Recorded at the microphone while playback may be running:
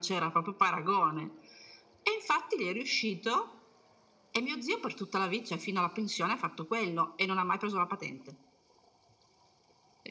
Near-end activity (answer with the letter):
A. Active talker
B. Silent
B